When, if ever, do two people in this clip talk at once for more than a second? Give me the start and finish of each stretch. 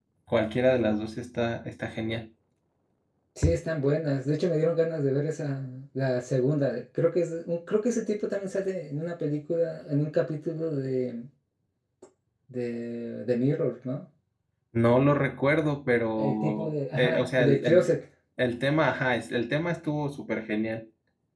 16.2-17.9

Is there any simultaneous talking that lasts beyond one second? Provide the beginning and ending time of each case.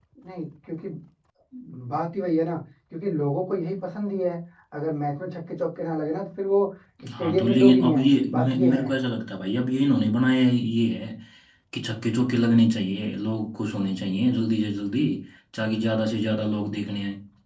7.2-8.9

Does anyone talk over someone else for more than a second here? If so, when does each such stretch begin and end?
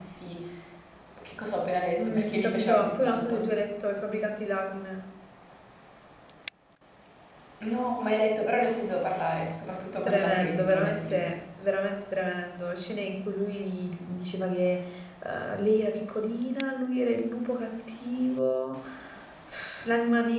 2.0-3.4, 10.0-11.3

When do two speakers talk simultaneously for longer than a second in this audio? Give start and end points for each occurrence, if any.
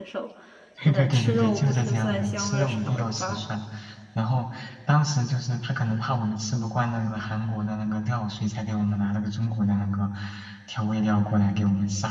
0.8-3.5

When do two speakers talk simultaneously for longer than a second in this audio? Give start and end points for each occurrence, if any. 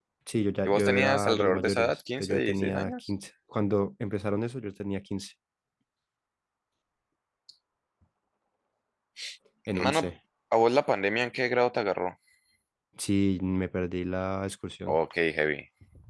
0.7-3.1

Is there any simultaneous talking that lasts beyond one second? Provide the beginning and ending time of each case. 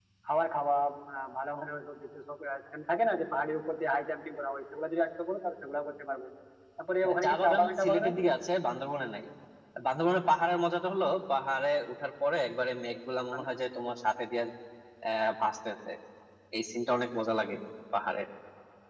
7.0-8.3

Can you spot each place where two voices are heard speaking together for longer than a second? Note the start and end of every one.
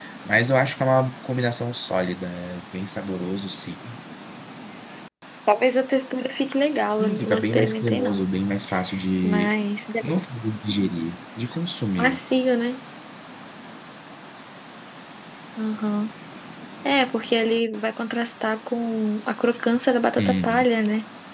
6.9-8.2

